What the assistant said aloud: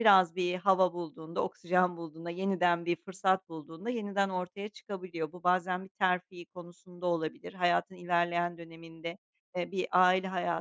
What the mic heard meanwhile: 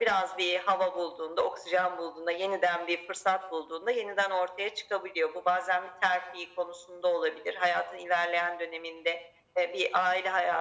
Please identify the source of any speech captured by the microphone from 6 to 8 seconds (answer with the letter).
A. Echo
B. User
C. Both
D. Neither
A